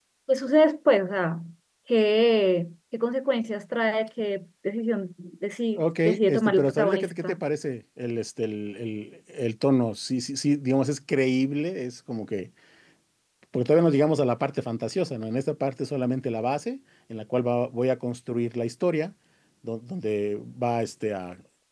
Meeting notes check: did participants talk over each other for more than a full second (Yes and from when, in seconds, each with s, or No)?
Yes, from 5.8 s